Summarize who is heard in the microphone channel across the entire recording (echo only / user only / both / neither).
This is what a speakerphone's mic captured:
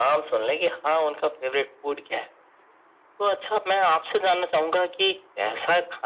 echo only